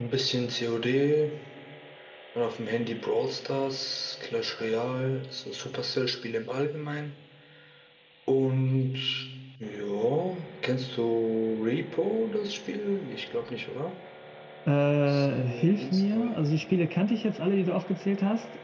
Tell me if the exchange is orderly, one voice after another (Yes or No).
No